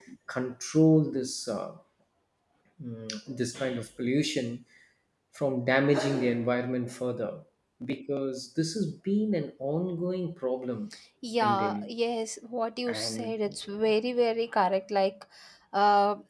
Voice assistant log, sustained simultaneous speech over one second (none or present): none